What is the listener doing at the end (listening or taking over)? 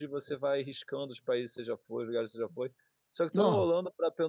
listening